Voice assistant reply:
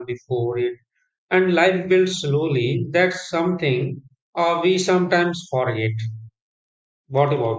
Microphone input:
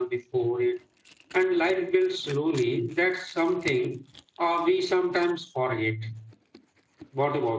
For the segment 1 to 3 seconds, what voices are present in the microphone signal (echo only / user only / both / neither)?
echo only